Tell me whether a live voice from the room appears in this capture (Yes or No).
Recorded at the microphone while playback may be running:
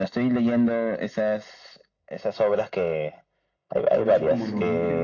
Yes